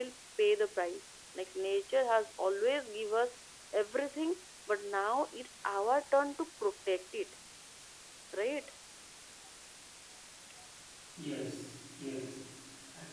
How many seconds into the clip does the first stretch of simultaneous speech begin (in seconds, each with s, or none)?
none